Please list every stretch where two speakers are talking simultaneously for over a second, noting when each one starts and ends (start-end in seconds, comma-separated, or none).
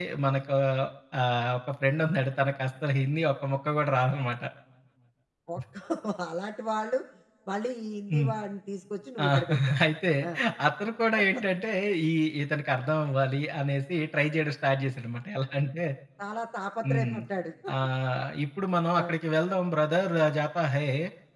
none